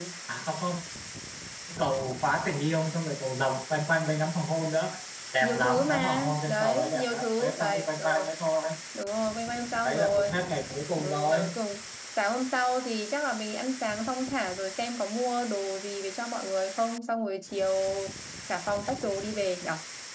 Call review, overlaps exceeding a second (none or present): present